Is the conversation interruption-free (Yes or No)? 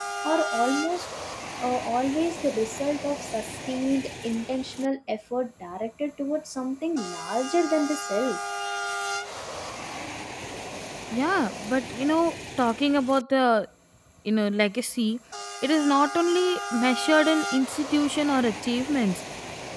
Yes